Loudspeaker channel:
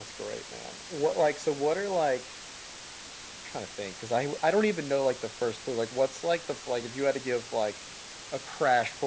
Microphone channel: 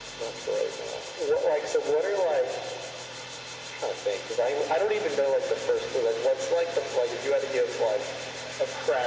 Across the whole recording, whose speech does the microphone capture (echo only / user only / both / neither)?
echo only